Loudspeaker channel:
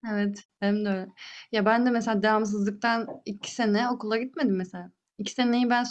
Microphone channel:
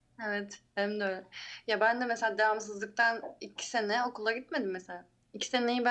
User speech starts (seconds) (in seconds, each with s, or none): none